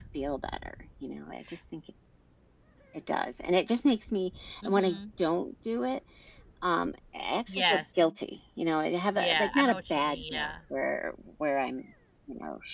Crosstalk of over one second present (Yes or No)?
Yes